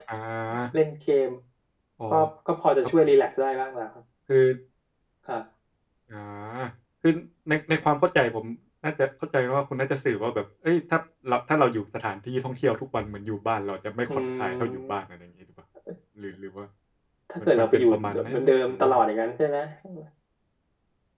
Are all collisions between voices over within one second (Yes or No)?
No